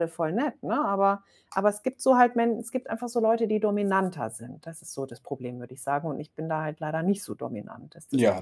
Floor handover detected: Yes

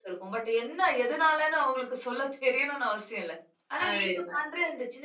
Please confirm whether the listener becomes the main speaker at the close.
No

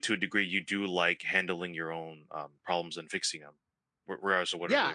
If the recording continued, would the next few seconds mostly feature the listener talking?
Yes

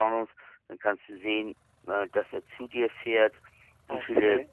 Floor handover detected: No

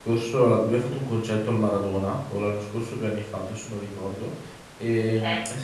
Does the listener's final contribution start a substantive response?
No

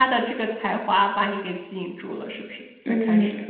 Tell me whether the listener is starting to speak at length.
Yes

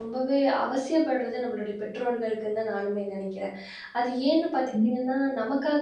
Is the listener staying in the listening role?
Yes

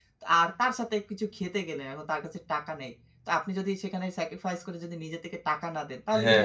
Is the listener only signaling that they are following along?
No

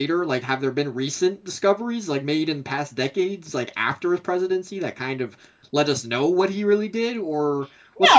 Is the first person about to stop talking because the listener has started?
Yes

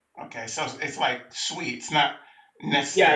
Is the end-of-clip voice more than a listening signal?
Yes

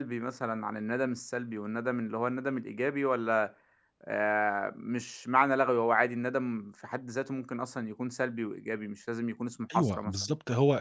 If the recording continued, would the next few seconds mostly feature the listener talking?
Yes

